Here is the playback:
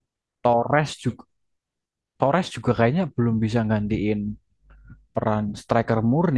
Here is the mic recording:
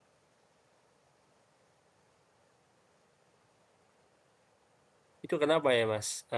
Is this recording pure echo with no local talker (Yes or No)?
No